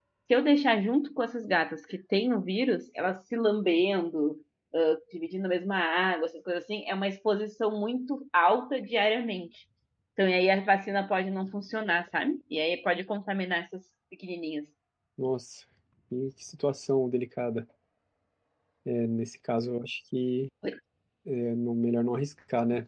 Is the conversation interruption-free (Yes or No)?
Yes